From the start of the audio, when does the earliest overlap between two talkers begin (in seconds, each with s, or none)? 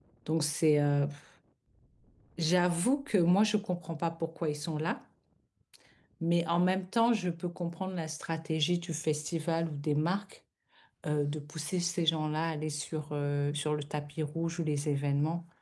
none